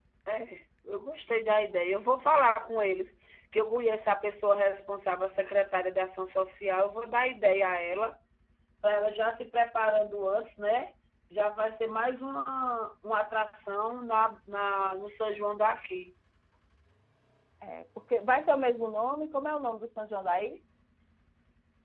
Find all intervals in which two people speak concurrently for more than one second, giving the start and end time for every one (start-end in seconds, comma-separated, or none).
none